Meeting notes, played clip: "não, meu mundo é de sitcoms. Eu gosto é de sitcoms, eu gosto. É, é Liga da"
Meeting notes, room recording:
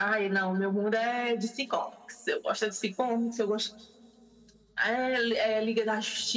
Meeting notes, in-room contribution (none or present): none